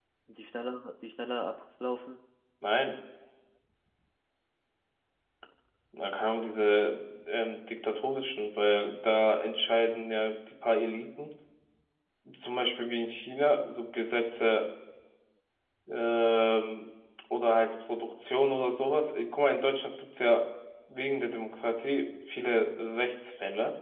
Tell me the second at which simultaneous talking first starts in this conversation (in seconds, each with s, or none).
none